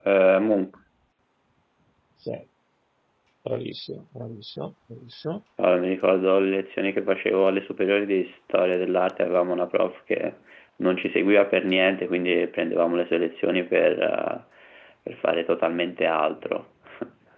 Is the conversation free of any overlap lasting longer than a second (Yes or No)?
Yes